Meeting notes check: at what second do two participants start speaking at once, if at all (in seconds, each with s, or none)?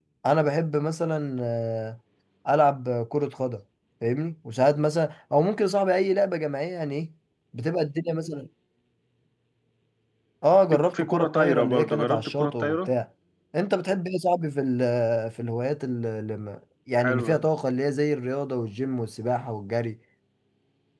10.7 s